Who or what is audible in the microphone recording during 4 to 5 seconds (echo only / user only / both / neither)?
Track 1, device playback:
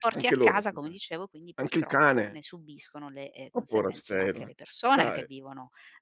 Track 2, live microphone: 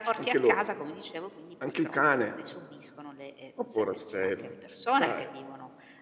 echo only